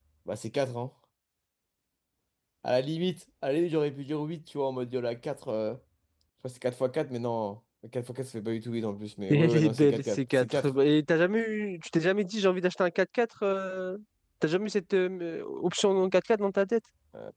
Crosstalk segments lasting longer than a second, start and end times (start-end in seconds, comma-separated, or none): 9.3-10.7